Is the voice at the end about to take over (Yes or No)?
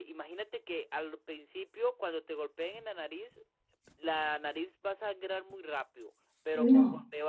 No